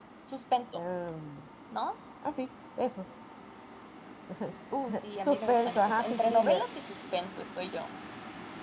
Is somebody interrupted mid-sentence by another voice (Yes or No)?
Yes